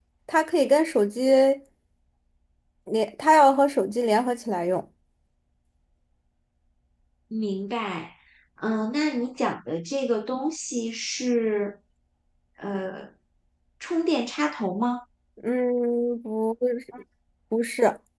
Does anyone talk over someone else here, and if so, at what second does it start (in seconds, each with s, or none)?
none